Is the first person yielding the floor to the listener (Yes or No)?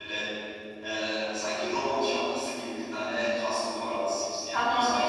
Yes